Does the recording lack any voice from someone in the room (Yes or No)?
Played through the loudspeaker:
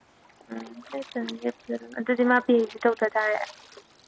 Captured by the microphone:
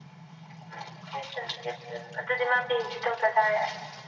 Yes